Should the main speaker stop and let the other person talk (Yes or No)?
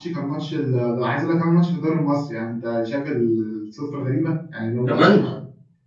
No